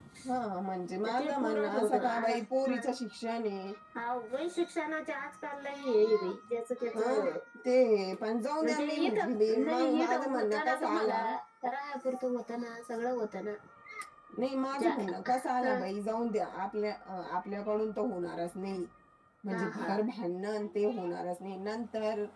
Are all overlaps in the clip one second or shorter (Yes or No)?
No